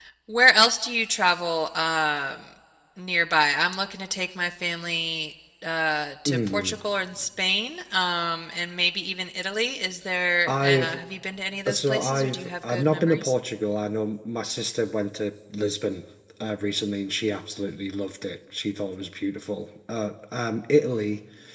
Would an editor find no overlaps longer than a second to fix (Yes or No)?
No